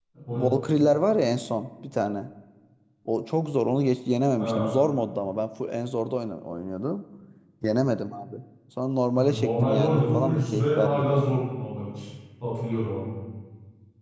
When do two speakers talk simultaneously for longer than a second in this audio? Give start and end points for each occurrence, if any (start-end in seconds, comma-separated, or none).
9.1-11.4